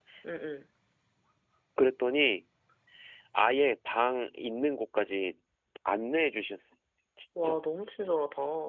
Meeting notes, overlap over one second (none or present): none